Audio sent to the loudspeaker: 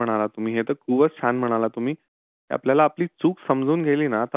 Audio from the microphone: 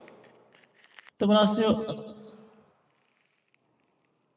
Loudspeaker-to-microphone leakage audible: No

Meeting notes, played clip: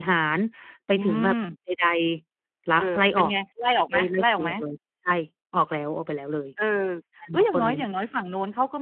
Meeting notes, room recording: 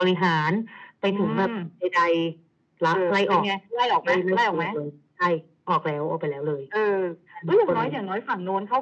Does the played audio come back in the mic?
Yes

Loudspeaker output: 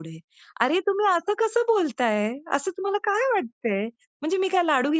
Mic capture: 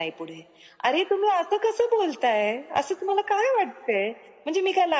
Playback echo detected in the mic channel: Yes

